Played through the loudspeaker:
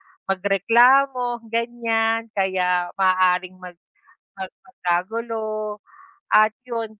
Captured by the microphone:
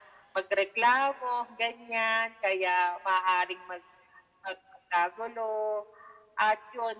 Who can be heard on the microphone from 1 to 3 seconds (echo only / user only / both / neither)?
echo only